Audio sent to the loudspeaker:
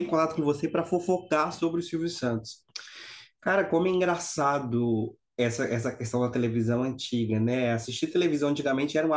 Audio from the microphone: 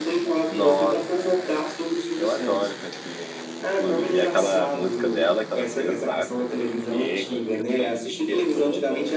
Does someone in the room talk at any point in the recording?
Yes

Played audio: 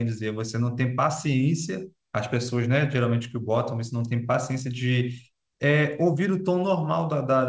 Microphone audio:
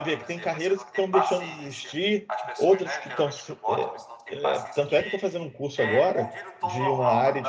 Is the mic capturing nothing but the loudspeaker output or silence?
No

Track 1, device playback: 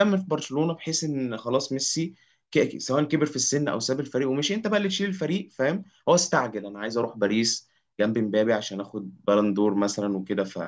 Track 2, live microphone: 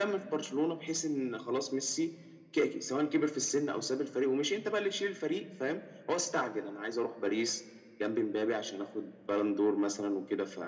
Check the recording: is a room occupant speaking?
No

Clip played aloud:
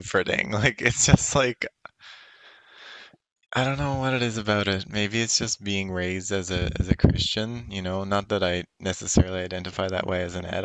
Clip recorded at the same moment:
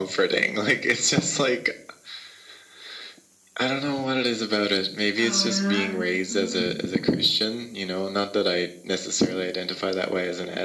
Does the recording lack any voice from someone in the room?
No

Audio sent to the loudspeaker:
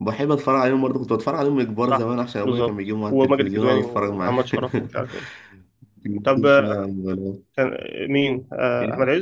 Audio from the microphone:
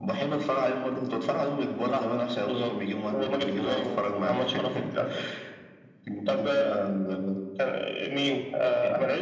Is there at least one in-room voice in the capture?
No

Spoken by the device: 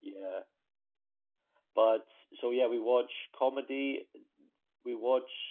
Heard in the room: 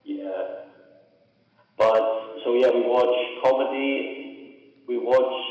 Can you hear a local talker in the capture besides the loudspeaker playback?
No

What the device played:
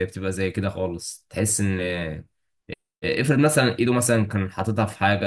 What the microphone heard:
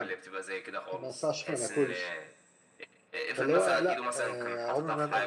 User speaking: Yes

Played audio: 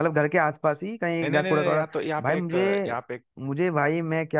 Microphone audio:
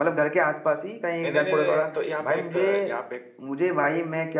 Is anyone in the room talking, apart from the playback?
No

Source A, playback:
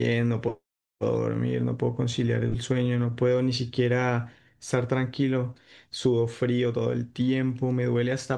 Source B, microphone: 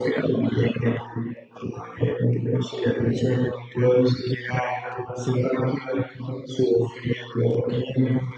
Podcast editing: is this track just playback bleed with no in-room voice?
Yes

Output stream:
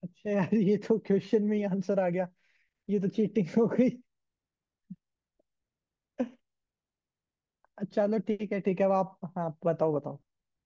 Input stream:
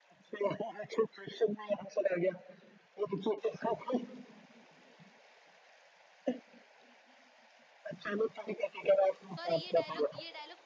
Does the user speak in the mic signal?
Yes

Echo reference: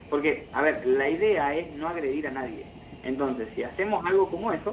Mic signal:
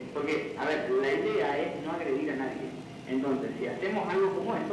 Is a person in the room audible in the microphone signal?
No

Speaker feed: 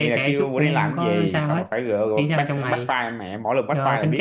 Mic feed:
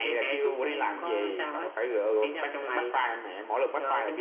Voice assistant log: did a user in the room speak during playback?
No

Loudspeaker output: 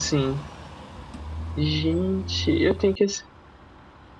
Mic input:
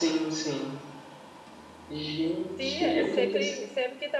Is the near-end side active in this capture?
Yes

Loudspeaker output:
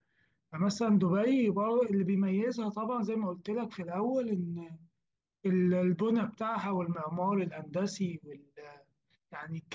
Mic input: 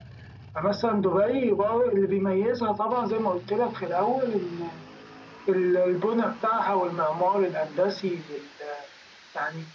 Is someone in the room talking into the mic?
No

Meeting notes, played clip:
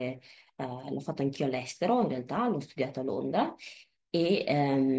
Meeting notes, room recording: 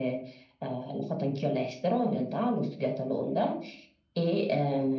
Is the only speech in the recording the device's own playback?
Yes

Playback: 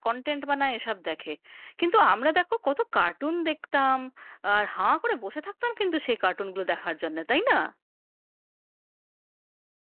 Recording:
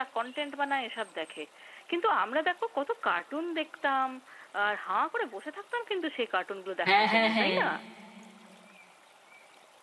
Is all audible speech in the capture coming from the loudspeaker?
No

